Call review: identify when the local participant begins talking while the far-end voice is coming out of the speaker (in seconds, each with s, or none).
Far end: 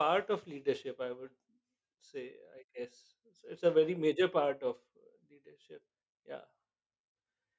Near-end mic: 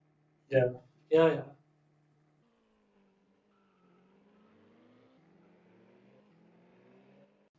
0.5 s